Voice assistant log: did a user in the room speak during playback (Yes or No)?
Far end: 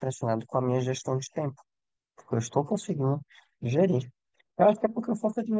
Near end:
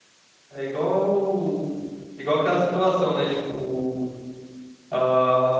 Yes